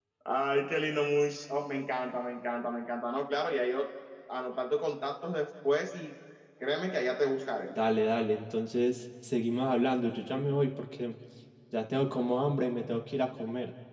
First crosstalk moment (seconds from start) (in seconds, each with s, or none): none